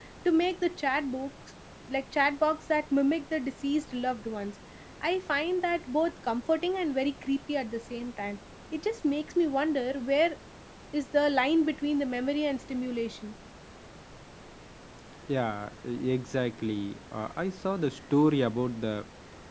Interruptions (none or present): none